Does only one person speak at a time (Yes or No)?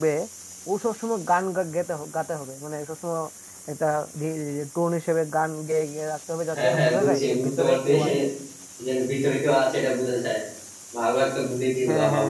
No